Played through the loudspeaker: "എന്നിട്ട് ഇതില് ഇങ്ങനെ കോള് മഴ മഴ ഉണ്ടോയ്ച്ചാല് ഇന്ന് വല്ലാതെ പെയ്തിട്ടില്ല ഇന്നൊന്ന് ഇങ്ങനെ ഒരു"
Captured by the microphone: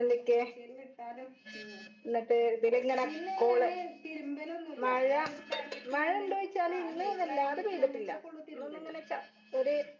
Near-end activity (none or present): present